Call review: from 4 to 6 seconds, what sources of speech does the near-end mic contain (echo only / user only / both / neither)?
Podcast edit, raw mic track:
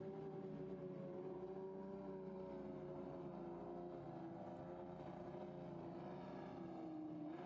neither